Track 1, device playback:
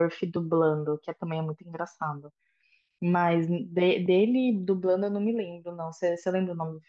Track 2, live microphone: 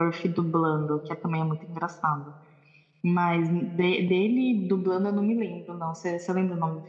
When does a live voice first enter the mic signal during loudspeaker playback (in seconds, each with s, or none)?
none